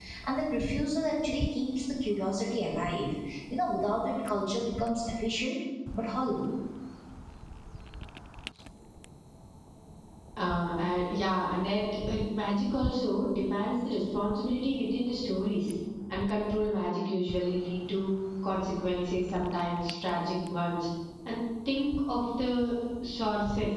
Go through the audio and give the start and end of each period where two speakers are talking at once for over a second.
none

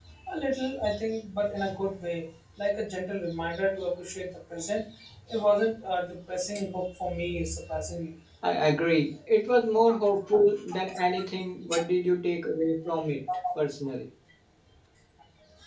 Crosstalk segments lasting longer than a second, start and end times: none

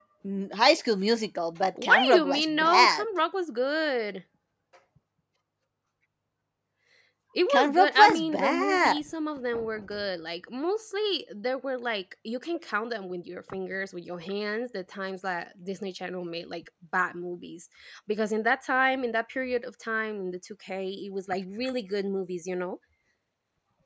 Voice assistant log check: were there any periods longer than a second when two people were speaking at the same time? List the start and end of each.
1.8-3.0, 7.5-9.0

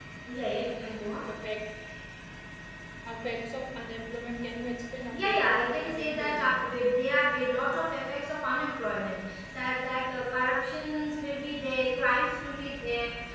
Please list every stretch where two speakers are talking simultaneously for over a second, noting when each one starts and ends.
5.1-6.7

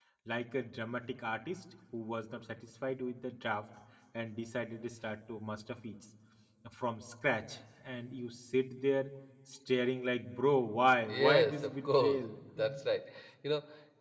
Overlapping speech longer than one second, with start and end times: 11.0-12.2

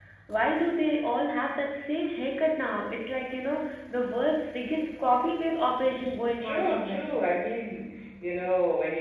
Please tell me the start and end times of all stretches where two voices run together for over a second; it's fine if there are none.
5.7-7.1

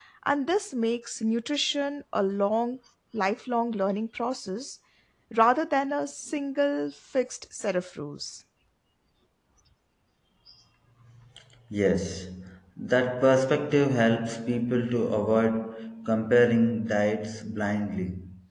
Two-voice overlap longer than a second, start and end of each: none

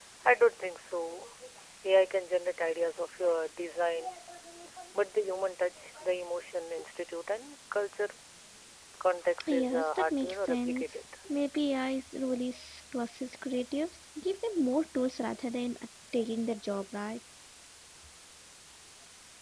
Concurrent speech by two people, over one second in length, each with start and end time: 9.5-11.0

